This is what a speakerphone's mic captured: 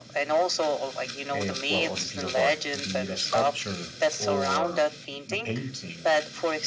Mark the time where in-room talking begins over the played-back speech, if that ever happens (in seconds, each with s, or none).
1.3 s